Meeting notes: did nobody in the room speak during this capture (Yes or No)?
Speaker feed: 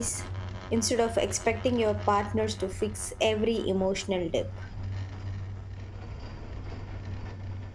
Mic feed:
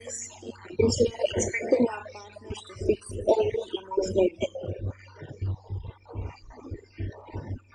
Yes